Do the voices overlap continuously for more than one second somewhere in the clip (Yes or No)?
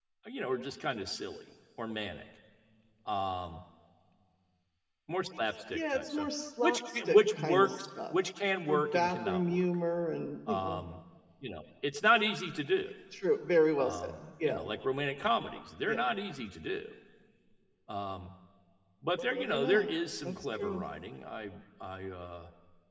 Yes